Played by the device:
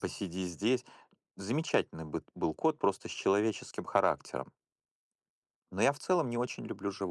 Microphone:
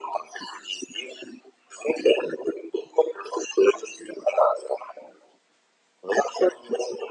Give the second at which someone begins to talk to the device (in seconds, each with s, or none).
none